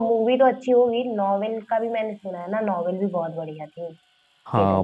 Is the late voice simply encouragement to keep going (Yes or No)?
No